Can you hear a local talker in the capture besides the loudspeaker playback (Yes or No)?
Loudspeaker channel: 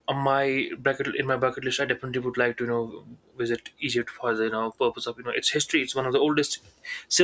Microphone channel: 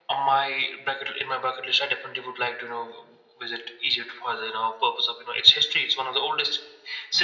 No